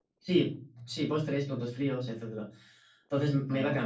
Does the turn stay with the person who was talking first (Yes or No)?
Yes